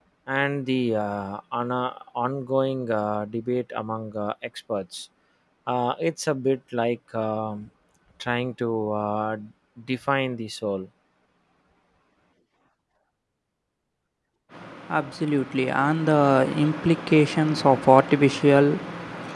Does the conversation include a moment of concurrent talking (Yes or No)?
No